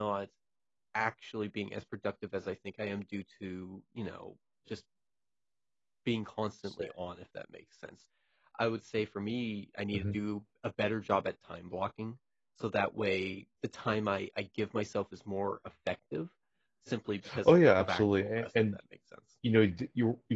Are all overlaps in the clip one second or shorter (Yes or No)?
No